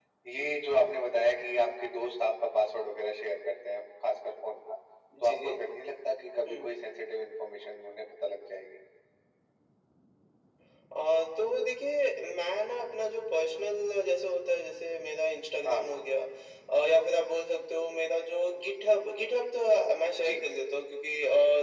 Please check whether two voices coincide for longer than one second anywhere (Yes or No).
No